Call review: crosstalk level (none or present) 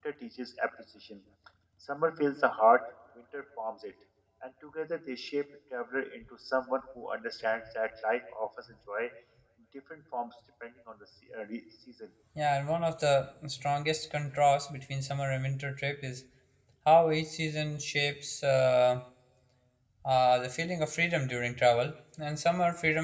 none